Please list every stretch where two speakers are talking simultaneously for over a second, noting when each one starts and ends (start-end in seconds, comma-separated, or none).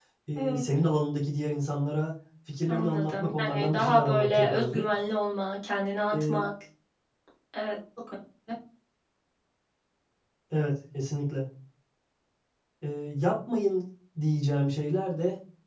2.7-4.9